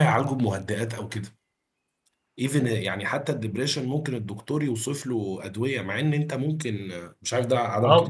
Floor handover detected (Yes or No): Yes